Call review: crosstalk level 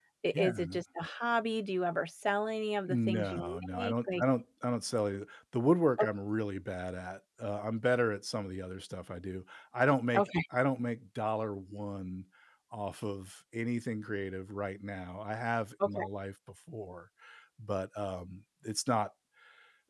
present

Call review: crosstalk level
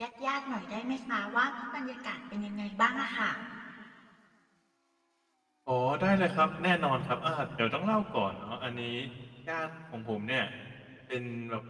none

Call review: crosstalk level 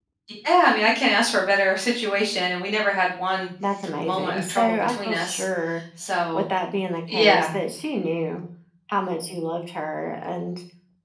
present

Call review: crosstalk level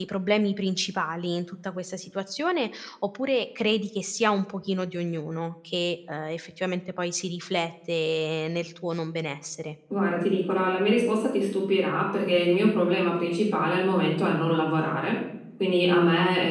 none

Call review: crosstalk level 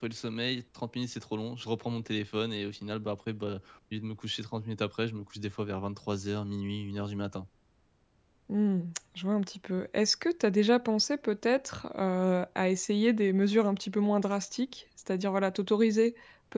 none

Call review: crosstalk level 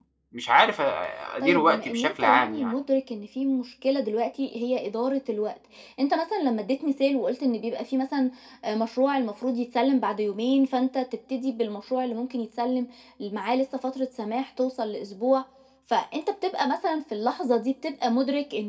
present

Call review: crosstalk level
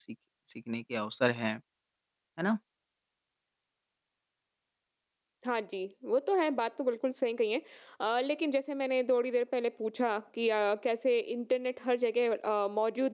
none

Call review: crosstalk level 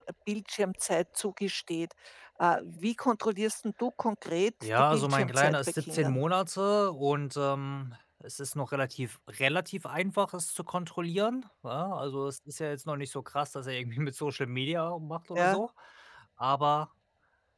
present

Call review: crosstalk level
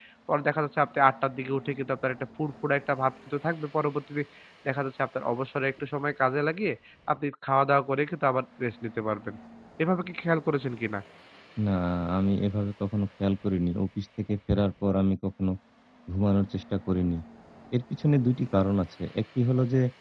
none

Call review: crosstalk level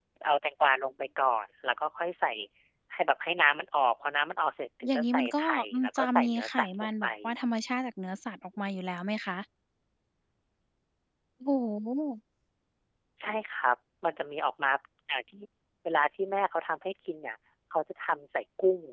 present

